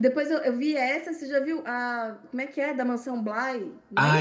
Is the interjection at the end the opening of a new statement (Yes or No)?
Yes